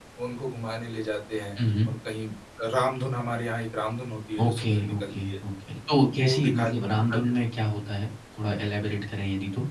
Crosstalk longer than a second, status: present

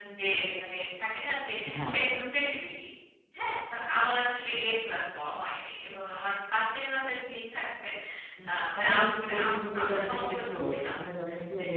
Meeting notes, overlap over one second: present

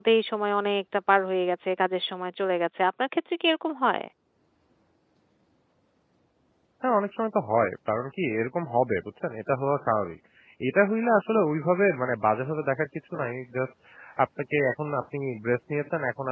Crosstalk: none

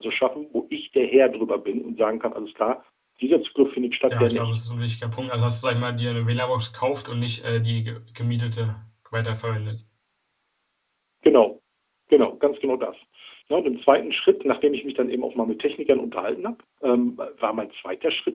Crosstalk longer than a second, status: none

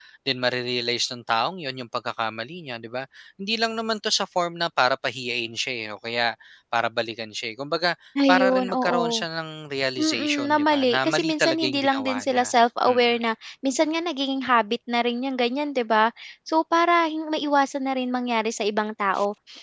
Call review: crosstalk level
present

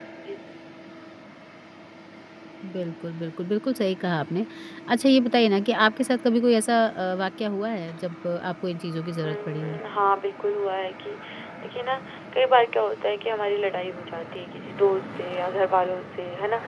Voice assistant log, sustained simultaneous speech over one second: none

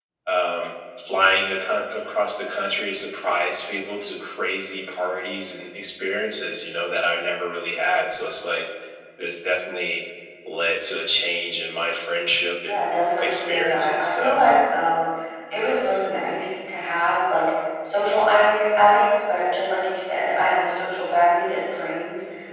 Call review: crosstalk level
present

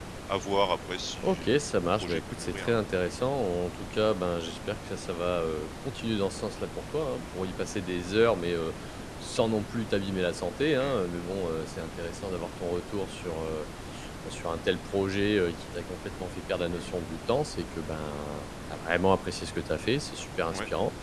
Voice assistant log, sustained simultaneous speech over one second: present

